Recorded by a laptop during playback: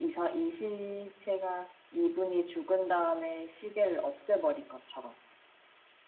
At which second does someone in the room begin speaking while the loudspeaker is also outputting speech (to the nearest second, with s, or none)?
none